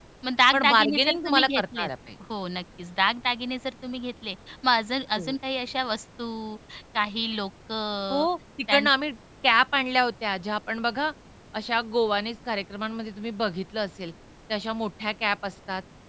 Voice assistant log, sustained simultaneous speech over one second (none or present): present